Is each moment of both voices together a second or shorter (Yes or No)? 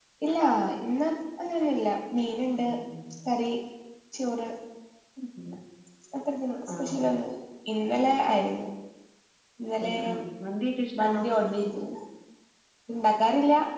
Yes